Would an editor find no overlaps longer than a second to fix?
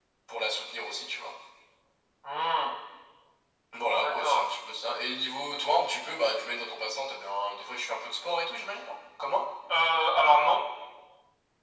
Yes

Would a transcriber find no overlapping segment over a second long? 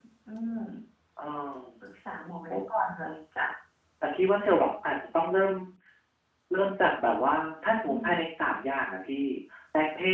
Yes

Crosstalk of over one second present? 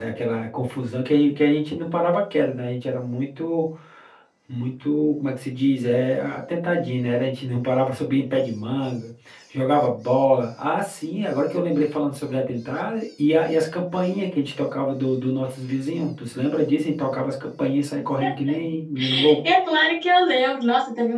No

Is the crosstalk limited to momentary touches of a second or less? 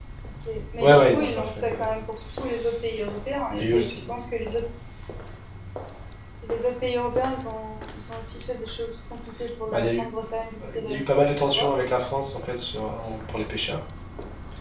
No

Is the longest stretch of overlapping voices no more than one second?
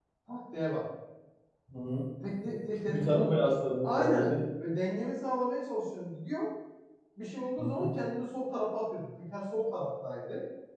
Yes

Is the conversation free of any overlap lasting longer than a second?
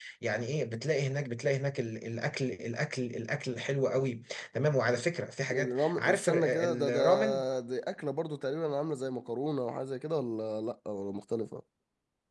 No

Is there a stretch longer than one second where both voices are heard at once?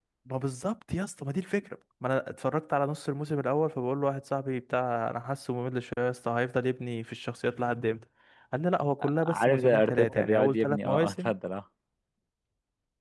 Yes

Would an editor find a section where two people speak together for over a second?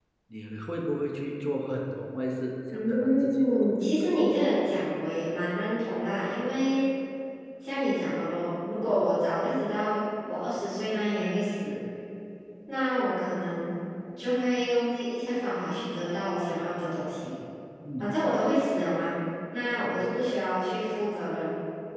Yes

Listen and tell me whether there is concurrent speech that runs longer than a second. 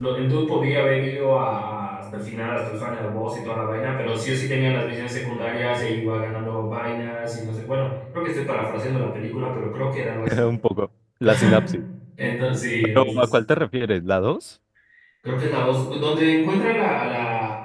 No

